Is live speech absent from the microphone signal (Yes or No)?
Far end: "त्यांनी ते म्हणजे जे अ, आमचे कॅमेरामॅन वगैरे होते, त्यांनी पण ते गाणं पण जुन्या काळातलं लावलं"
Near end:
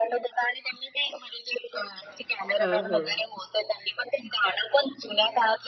No